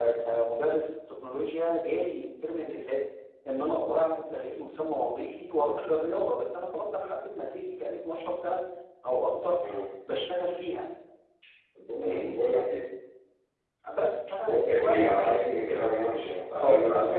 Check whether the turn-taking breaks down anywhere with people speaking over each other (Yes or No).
Yes